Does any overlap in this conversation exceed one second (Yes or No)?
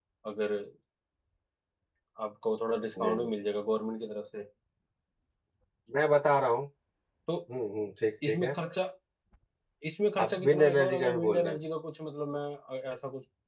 Yes